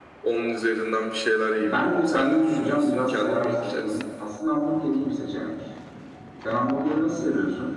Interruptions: present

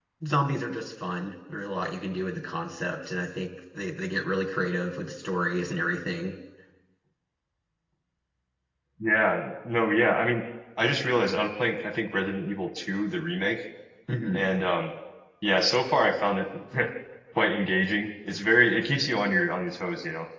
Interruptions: none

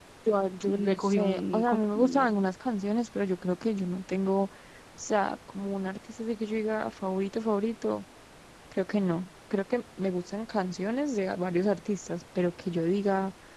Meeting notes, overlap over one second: present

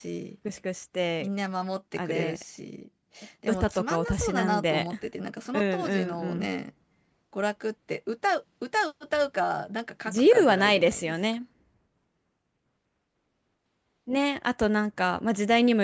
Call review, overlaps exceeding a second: present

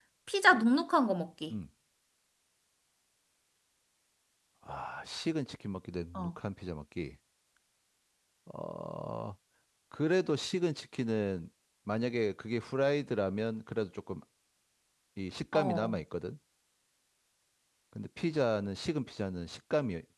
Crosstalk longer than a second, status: none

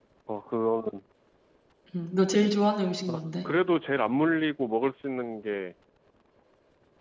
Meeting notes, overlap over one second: none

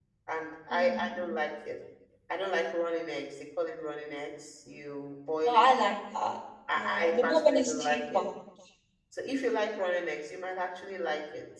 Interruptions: present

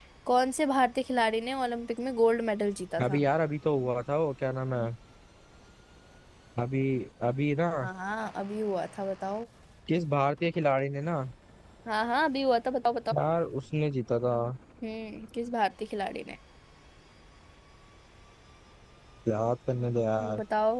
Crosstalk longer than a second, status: none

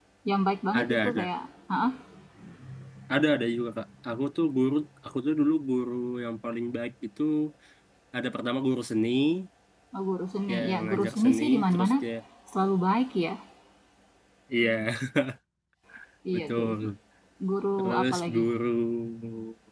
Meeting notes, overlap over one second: present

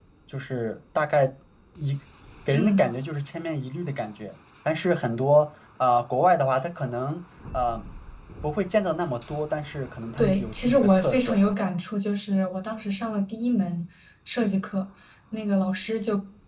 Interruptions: present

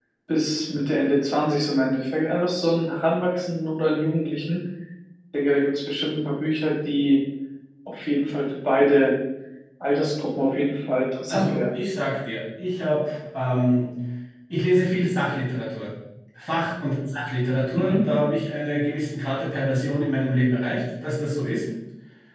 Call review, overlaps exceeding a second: none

